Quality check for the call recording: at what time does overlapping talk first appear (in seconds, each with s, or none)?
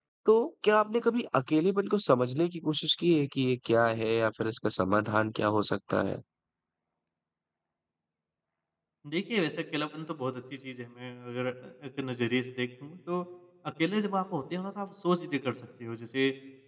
none